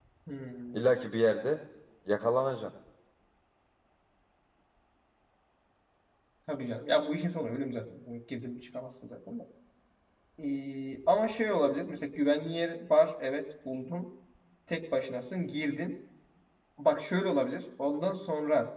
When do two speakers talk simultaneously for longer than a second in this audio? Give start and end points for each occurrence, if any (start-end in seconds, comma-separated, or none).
none